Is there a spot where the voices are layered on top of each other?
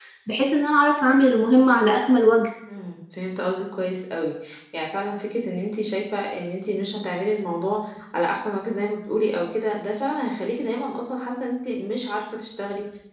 No

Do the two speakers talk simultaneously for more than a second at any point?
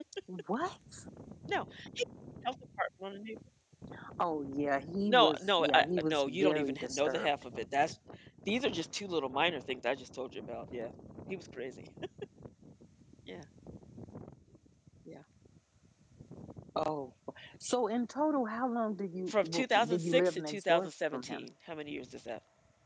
Yes, from 5.1 s

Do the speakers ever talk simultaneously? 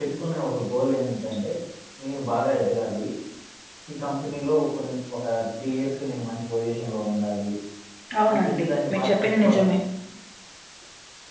Yes, from 8.3 s

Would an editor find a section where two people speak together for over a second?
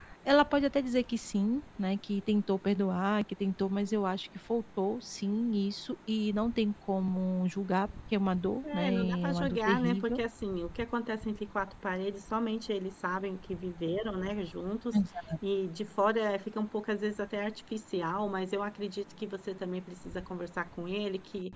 Yes, from 8.6 s

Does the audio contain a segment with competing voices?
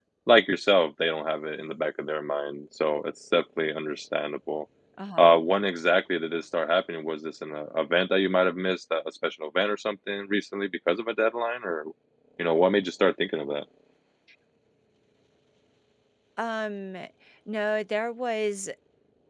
No

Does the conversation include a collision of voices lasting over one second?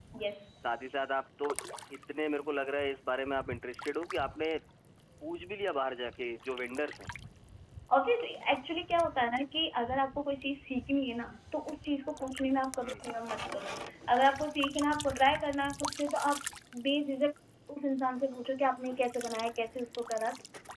No

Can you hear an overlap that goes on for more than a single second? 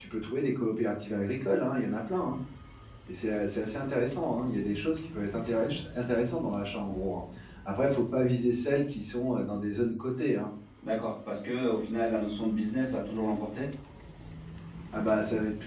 No

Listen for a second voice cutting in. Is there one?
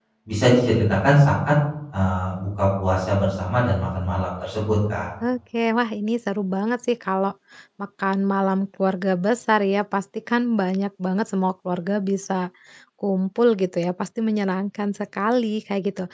No

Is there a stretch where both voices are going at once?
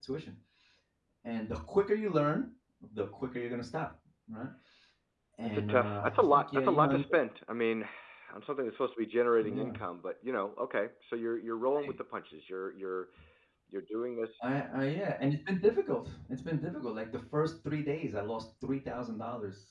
Yes, from 5.4 s

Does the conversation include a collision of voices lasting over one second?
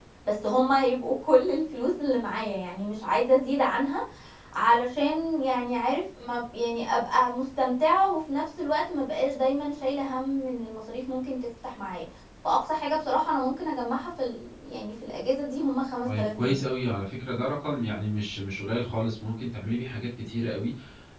No

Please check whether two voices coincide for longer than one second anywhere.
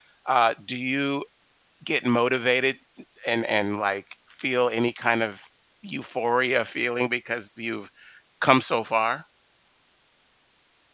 No

